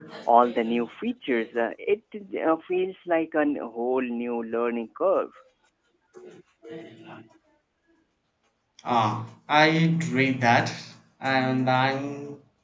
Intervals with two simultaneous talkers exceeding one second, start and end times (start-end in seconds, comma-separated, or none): none